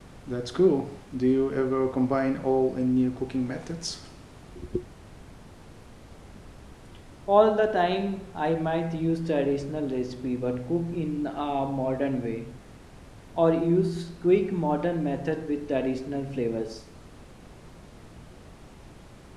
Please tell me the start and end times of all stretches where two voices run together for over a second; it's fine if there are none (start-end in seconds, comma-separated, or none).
none